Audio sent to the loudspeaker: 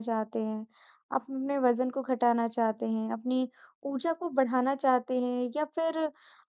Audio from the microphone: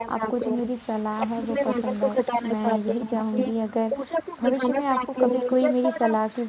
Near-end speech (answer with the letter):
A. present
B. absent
A